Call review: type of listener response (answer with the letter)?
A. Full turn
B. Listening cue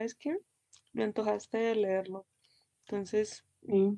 A